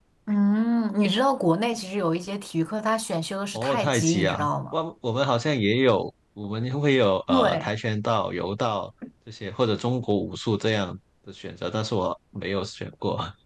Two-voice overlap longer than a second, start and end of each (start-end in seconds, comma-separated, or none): 3.5-4.8